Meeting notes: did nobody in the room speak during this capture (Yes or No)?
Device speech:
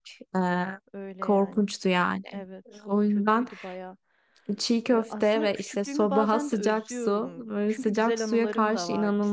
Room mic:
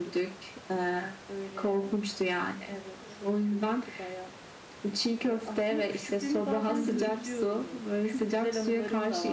No